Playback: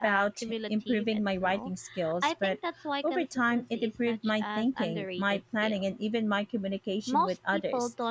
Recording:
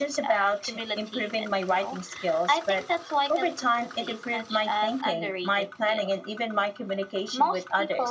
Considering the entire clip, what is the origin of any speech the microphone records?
echo only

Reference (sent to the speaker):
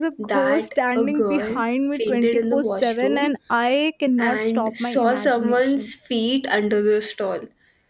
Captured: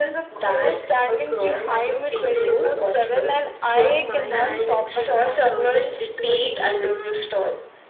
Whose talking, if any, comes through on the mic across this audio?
both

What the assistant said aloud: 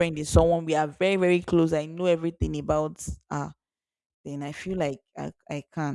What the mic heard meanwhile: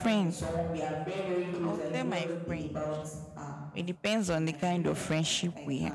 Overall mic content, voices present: both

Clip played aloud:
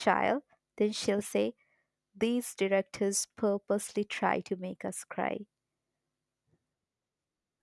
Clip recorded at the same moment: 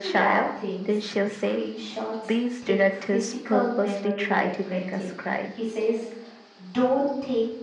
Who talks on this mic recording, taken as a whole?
both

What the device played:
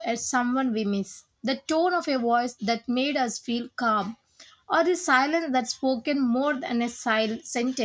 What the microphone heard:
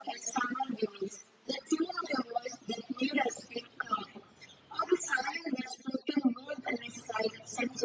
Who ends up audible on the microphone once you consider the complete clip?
echo only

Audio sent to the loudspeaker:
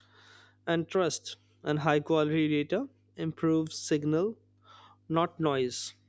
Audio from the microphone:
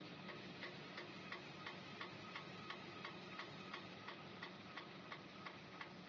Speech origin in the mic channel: neither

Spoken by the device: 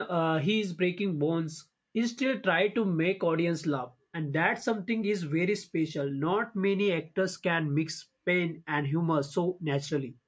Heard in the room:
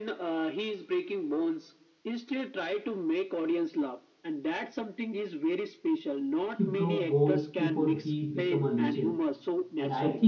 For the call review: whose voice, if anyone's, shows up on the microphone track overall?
both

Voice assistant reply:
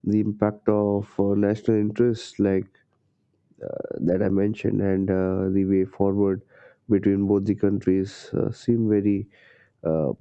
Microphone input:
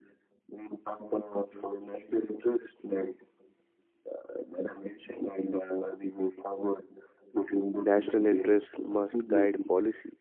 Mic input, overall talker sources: both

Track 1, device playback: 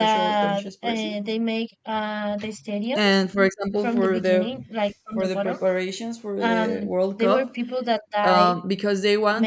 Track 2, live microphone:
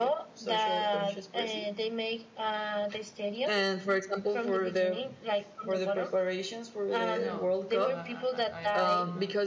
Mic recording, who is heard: both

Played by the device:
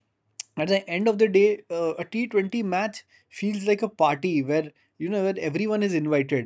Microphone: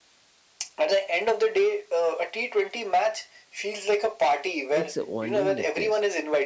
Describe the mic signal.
both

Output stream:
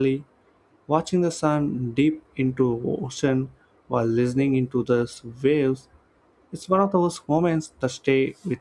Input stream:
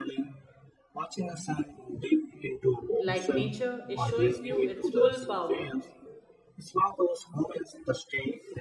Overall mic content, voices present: both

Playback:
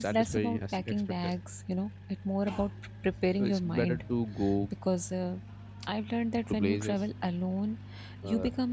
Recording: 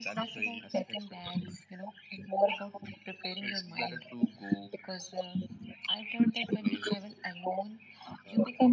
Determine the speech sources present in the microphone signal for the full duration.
echo only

